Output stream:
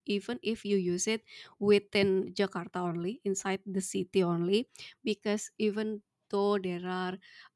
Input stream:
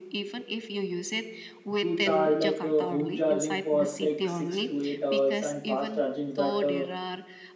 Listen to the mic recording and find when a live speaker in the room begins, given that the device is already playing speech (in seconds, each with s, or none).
1.8 s